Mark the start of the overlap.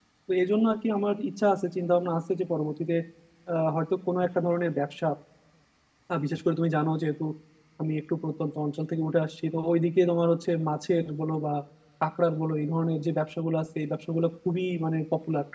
none

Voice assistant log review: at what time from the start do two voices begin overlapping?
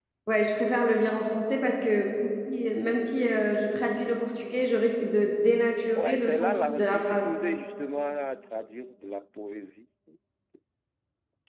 5.9 s

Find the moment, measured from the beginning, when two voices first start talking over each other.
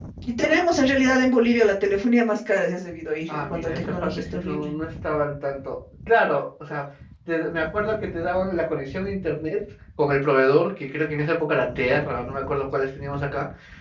3.3 s

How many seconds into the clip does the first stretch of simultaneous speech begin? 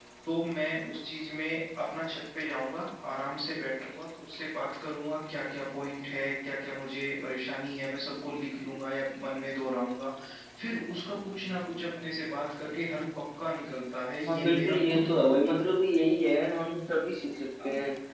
14.3 s

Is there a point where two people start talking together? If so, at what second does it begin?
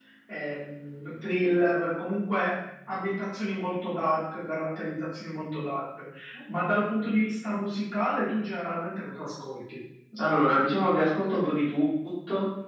none

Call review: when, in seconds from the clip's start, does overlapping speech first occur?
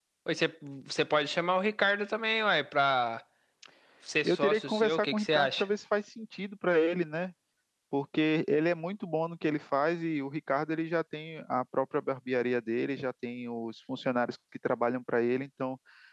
4.2 s

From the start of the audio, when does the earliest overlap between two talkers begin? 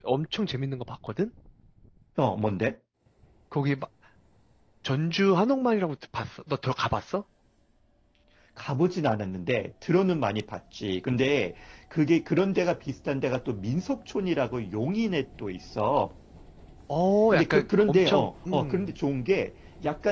17.3 s

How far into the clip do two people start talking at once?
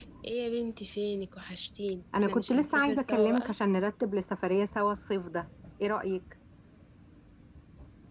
2.1 s

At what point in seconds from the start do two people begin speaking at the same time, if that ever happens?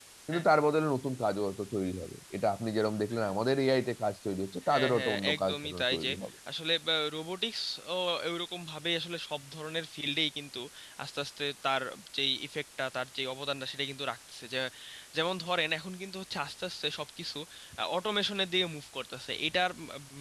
4.7 s

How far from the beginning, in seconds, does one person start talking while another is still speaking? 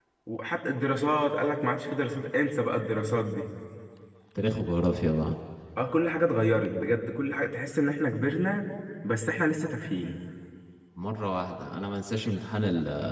none

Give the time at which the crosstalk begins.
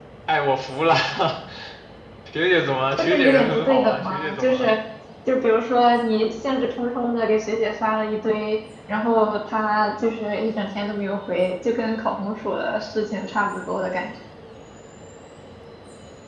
2.9 s

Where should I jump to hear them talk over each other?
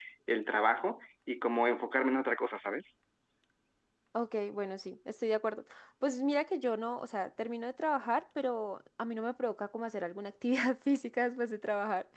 none

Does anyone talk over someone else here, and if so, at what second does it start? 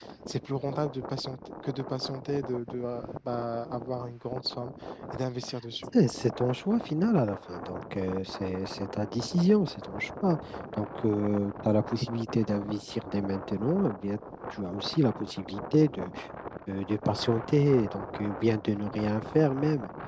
none

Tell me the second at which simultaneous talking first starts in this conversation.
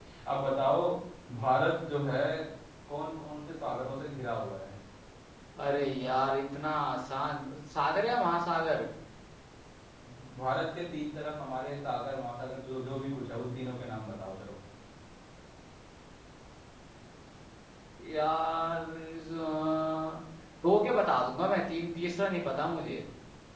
none

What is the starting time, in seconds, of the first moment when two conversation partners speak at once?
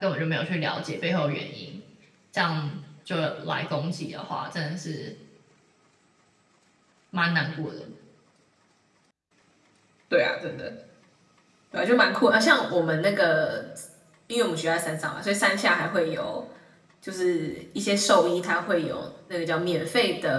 none

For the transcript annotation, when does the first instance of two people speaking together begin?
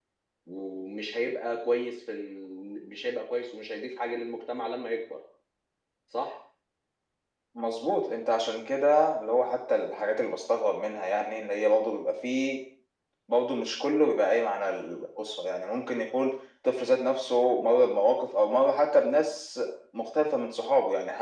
none

